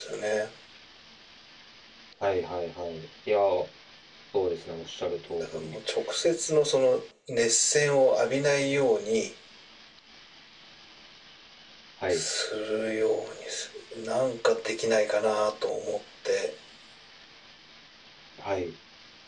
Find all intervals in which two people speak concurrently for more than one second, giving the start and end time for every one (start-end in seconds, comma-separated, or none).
none